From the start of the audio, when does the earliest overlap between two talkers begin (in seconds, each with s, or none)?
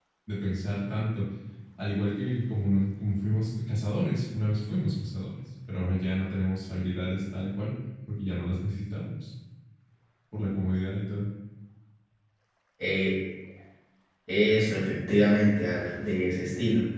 none